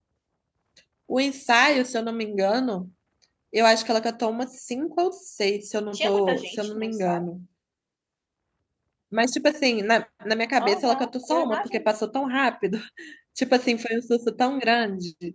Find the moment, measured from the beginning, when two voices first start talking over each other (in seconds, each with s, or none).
5.9 s